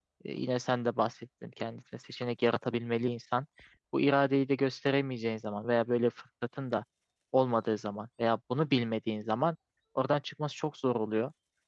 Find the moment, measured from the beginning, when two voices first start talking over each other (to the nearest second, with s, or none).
none